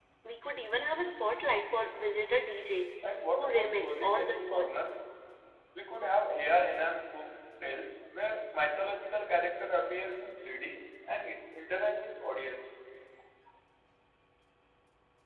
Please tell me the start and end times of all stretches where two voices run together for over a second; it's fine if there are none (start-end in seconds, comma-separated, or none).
3.4-4.7